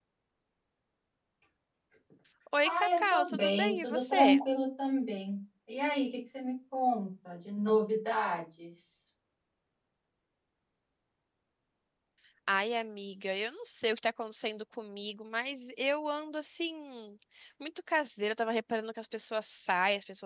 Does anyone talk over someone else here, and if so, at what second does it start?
2.6 s

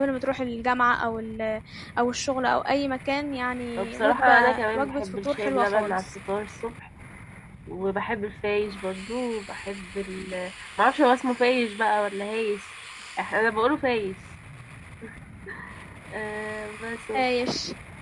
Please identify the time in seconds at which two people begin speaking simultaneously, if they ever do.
3.8 s

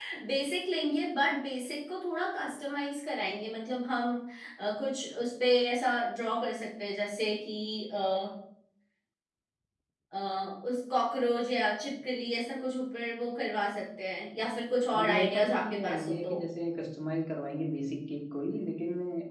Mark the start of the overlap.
14.9 s

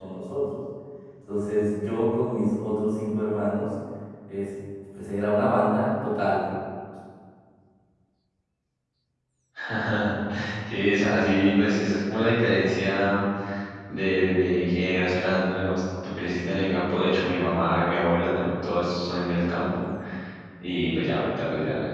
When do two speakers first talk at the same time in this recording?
none

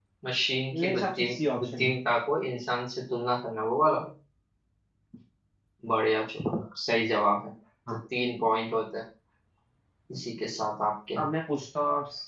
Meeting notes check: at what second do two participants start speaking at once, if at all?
0.7 s

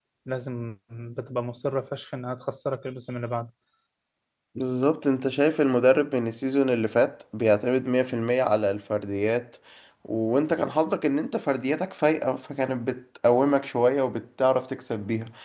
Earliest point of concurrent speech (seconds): none

